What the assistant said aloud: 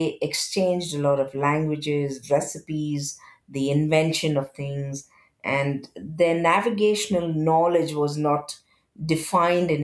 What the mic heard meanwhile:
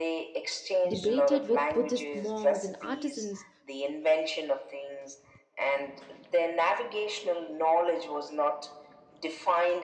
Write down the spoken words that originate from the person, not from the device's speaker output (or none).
debated with Buddhist monks and artisans